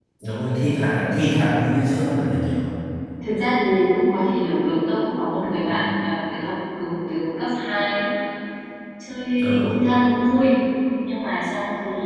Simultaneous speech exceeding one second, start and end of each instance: none

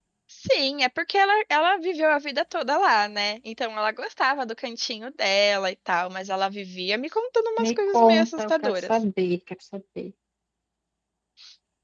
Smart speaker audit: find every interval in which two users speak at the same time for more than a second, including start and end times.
7.6-9.0

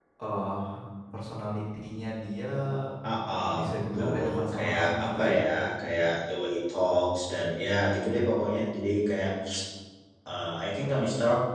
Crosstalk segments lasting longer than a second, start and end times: 3.6-5.4

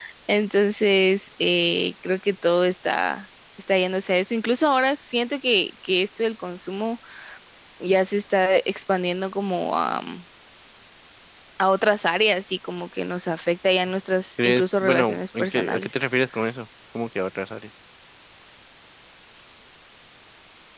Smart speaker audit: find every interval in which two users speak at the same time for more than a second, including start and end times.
14.4-16.0

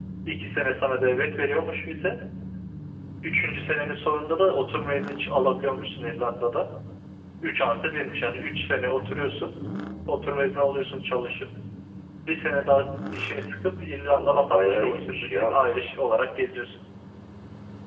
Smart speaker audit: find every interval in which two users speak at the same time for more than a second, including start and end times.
14.0-15.8

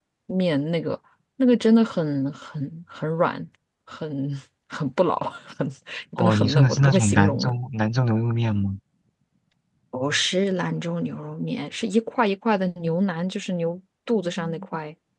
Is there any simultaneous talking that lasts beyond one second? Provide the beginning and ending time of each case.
6.2-7.5

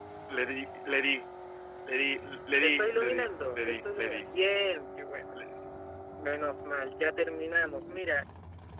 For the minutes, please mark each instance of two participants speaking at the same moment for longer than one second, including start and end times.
2.6-4.2

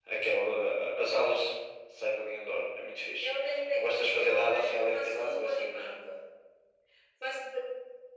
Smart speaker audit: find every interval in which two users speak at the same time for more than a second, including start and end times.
3.7-6.0

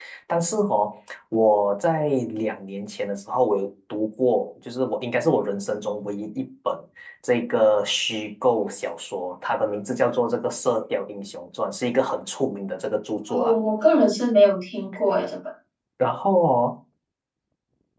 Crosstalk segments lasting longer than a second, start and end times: none

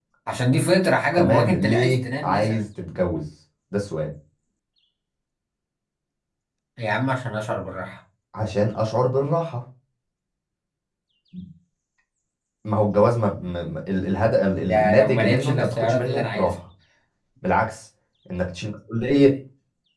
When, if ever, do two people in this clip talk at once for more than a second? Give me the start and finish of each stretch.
1.2-2.6, 14.6-16.5

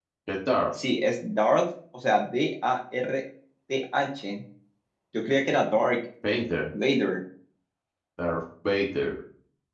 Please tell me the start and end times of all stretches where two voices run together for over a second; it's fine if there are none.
none

